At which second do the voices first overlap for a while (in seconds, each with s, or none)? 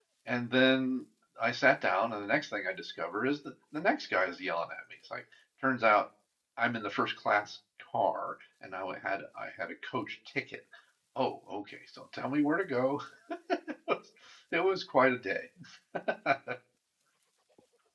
none